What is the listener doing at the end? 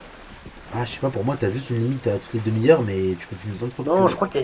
taking over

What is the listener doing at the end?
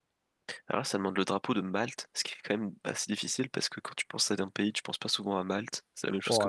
taking over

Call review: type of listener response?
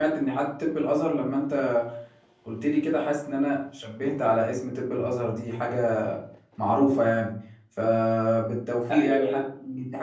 listening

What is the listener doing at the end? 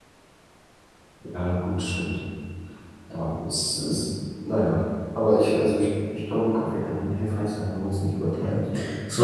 taking over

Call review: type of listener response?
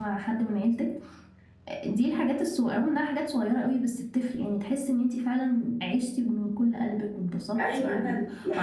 taking over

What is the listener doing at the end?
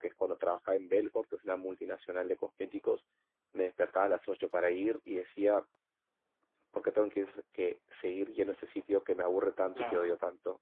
listening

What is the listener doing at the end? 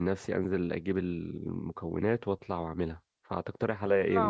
taking over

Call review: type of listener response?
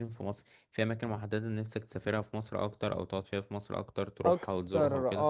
taking over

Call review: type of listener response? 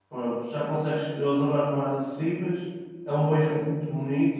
listening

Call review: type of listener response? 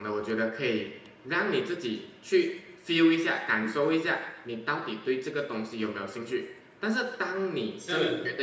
listening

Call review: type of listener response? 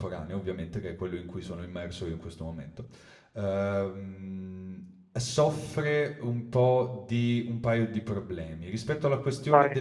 listening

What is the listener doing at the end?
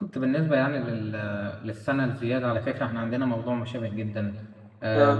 listening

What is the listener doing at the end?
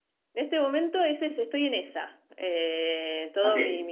taking over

